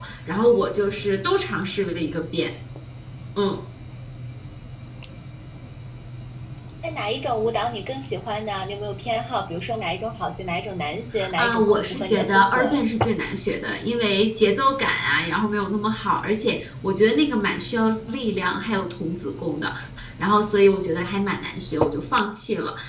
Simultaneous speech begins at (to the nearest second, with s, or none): 11 s